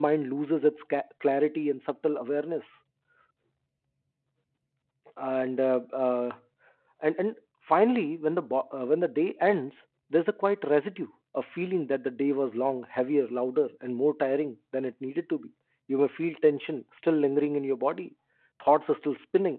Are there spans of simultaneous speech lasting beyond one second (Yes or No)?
No